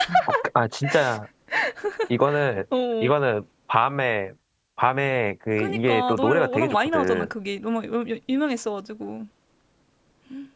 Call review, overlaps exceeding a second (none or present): present